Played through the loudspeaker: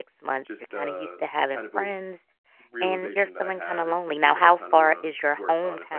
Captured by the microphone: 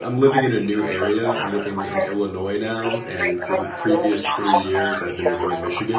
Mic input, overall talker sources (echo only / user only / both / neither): both